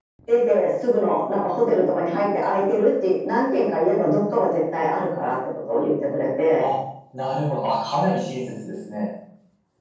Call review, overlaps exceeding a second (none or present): none